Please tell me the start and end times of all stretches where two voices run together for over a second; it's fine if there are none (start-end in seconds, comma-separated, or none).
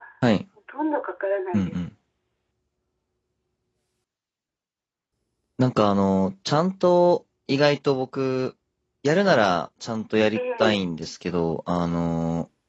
none